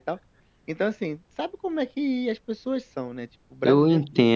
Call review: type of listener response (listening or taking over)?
taking over